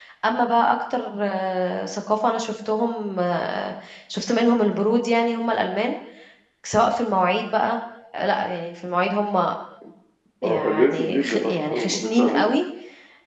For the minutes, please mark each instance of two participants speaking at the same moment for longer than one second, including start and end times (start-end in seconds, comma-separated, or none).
10.4-12.5